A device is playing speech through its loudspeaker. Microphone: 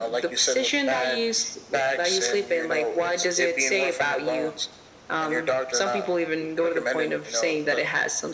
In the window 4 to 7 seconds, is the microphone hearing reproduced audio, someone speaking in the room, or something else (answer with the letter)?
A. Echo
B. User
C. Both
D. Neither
A